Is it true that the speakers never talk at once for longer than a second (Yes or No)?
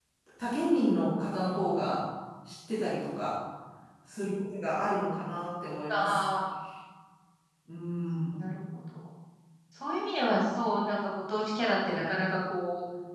Yes